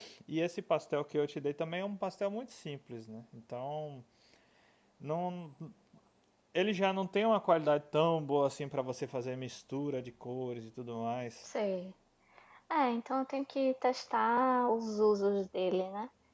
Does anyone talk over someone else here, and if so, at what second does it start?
none

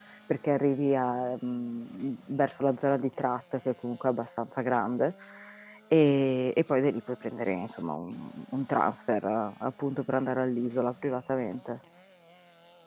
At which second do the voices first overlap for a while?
none

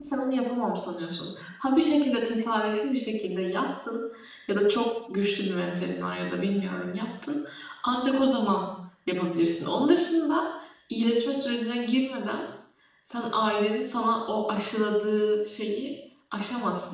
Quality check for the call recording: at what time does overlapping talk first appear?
none

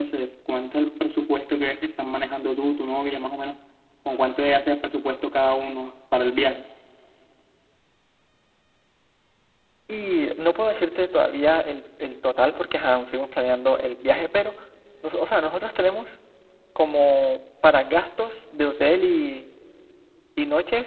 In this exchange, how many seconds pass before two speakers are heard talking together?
none

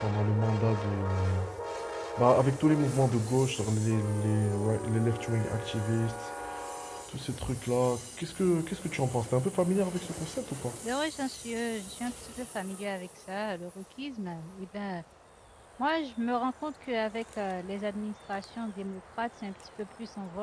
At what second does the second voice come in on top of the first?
none

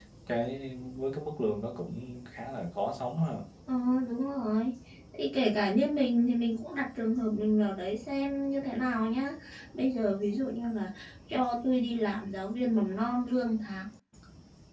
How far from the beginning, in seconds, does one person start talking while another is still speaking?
none

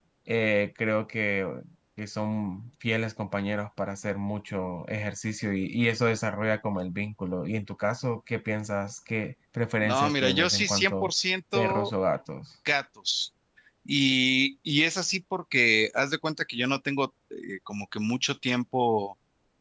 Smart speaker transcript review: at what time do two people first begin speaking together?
9.8 s

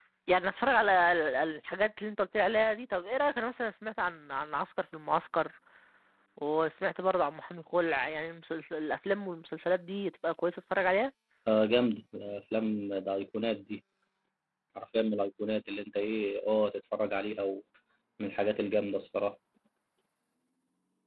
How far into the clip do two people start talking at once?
none

